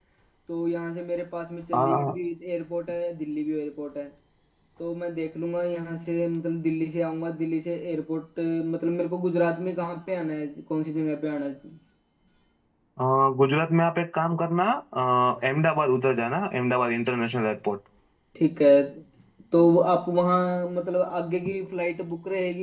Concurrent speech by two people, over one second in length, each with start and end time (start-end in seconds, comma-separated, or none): none